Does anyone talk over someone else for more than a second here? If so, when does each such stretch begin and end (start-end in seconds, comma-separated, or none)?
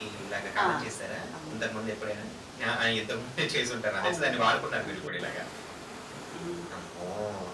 4.1-5.3